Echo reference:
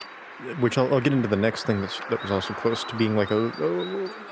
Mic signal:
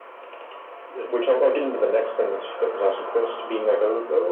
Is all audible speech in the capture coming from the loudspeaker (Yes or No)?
Yes